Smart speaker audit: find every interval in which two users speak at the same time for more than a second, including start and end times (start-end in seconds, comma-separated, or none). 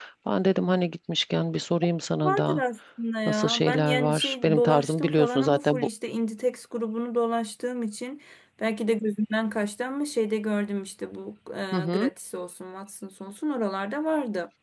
3.3-5.9